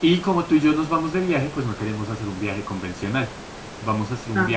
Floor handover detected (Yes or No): No